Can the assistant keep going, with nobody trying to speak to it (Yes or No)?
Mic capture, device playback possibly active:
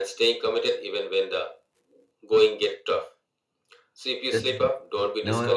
No